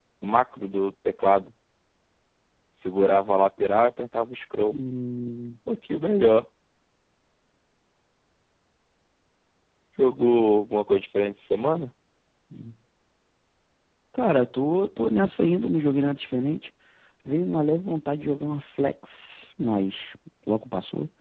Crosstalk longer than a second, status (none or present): none